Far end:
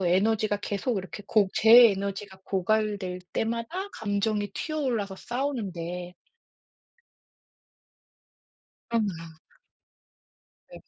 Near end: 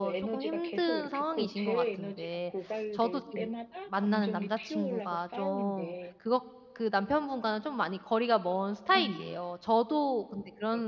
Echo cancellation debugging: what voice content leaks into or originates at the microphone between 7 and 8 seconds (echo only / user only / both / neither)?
user only